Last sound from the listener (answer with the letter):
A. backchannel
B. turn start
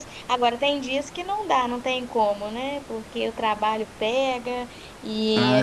A